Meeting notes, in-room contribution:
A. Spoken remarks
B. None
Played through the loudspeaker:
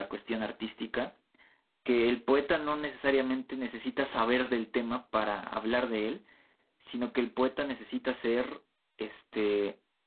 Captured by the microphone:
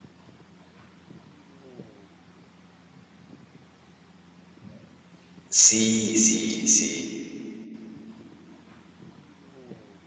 A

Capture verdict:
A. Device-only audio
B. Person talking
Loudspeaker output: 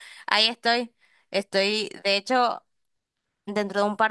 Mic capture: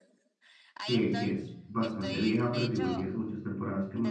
B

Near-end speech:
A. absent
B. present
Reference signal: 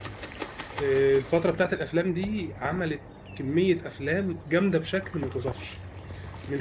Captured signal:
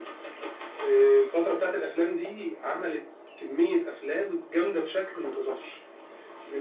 A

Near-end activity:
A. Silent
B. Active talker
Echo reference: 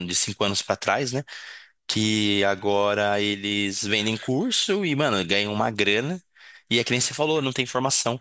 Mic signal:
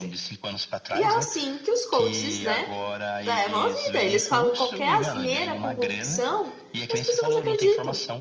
B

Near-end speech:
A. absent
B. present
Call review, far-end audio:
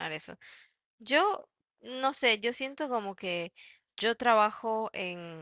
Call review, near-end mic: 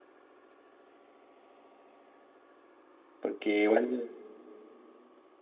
B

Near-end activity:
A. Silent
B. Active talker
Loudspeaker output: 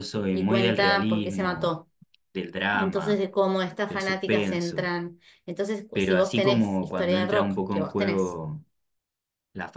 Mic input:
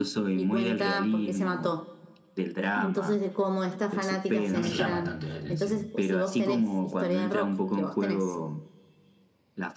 B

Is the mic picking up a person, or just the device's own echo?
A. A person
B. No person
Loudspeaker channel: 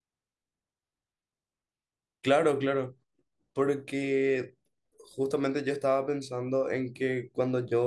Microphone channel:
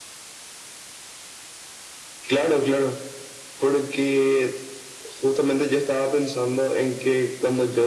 B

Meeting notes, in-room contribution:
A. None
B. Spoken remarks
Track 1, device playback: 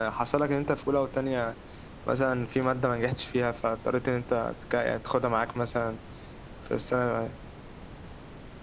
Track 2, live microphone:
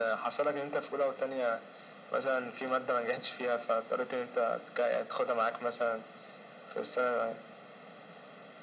A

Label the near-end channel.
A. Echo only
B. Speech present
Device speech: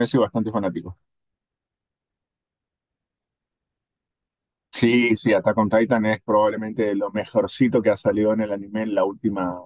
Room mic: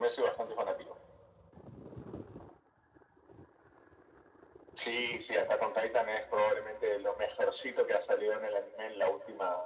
A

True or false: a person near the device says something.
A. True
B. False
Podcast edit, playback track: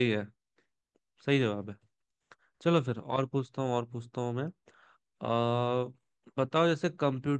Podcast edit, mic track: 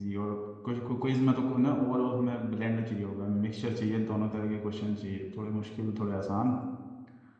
A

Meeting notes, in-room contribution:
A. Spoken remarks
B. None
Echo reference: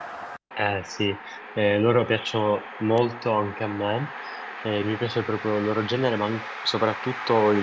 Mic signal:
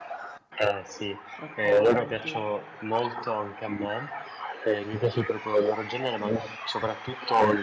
A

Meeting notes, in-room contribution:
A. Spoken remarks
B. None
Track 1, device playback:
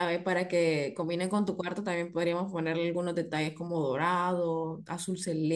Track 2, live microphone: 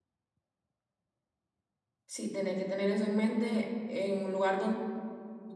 A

